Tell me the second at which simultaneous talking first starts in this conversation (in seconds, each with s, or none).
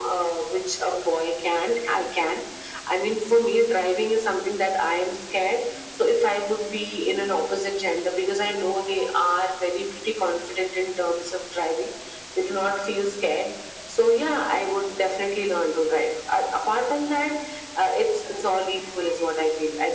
none